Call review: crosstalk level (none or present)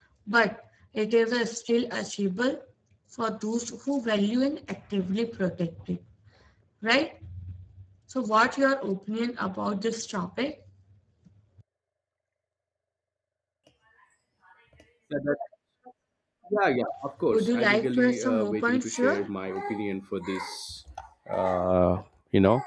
present